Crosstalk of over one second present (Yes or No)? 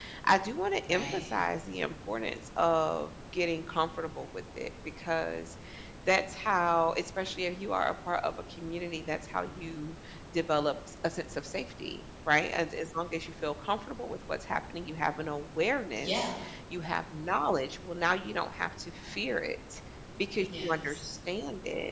No